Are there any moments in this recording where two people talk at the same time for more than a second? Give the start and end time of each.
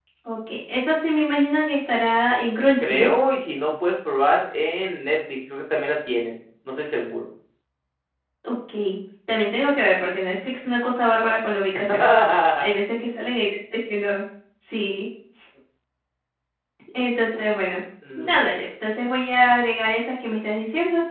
none

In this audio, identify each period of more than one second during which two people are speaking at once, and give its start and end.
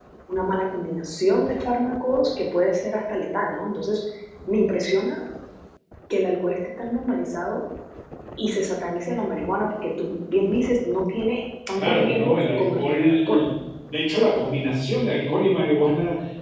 11.7-13.4

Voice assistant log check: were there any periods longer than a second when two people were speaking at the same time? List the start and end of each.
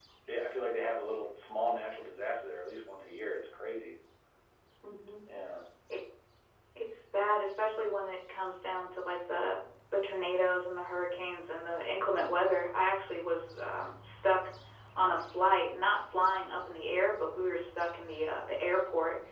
none

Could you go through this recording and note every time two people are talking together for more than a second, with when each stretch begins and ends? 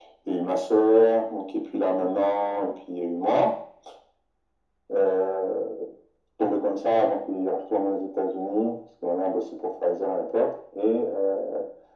none

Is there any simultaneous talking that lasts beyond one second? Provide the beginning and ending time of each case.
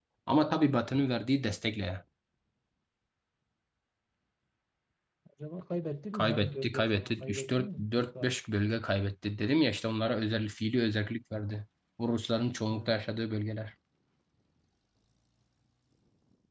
6.1-8.4

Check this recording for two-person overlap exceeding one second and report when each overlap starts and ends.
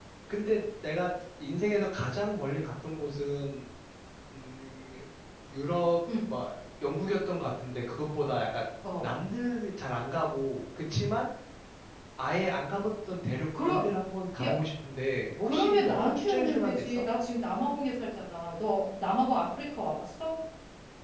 15.4-17.0

